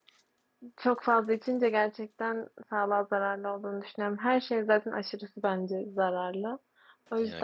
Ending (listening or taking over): listening